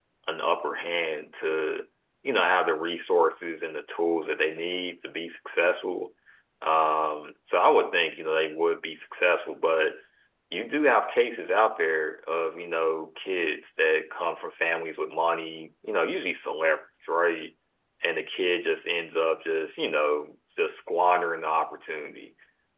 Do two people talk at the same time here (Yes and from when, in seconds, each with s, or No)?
No